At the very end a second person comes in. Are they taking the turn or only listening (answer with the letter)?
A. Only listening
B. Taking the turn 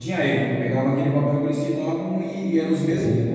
A